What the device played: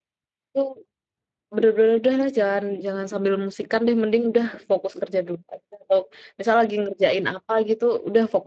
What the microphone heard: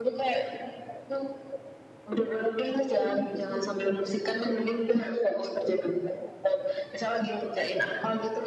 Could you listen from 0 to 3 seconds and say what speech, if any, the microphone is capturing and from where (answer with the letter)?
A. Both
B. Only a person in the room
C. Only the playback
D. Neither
C